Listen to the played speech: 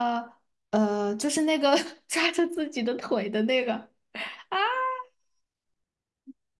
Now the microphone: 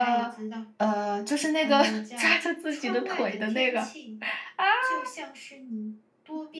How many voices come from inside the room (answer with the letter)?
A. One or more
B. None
A